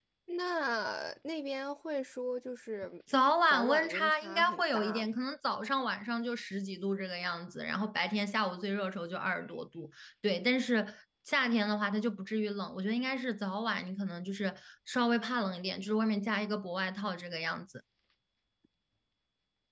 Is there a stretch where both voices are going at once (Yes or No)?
Yes